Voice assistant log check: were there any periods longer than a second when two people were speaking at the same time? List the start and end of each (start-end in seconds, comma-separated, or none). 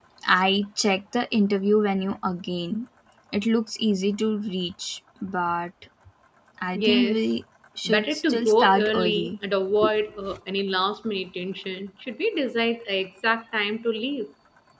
7.8-9.3